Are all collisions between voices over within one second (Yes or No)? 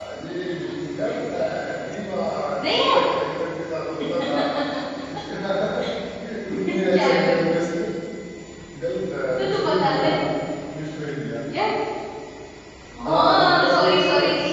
No